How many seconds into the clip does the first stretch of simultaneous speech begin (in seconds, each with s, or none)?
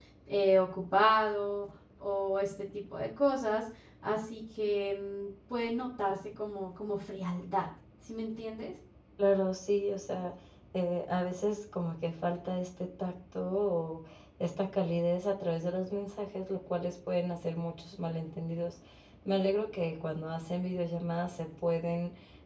none